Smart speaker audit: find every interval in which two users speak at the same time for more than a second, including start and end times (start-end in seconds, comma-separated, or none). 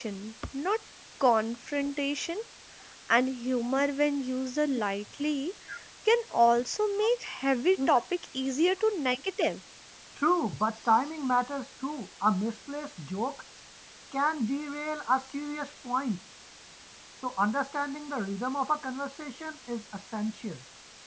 none